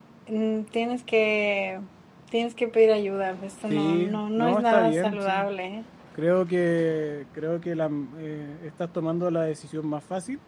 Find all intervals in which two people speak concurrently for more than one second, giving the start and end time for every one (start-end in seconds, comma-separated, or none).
3.7-5.5